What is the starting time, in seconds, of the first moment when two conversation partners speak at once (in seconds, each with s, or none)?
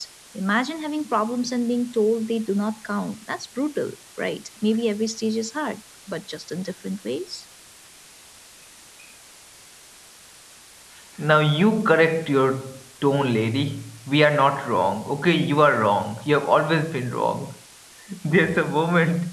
none